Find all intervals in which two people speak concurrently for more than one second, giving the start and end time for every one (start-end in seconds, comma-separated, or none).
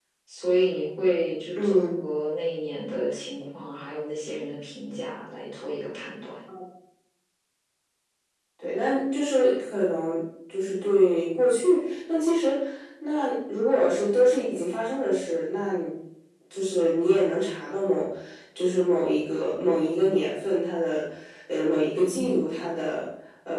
none